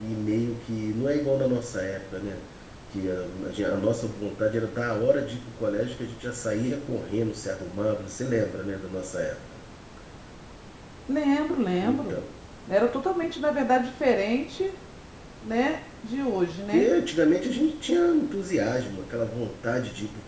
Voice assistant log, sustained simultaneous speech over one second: none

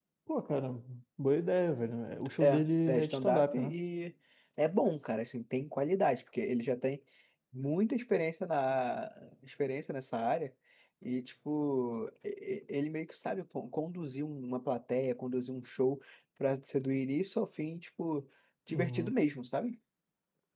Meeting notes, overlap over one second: present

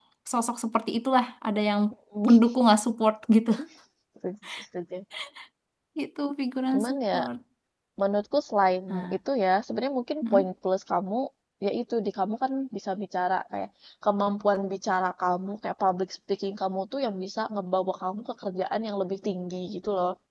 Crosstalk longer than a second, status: none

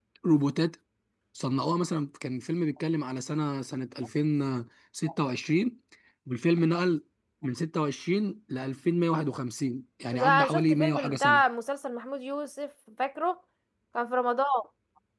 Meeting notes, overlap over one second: present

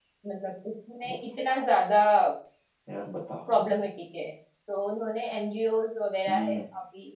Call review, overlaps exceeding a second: none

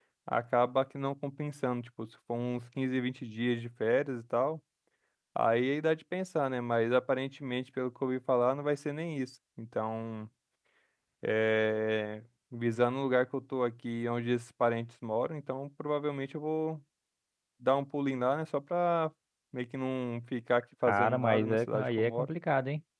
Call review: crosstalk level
present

